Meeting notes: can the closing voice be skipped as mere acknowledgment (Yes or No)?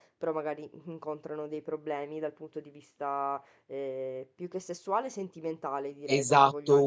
No